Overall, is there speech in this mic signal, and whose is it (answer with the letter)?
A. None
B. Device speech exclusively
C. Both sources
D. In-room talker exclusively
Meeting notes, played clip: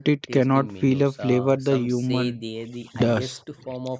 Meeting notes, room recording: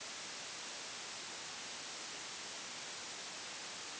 A